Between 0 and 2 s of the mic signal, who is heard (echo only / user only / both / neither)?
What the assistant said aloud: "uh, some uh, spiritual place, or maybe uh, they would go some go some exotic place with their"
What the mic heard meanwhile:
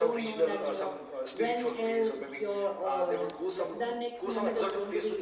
both